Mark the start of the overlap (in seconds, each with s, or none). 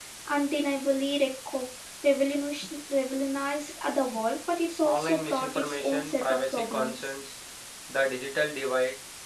4.8 s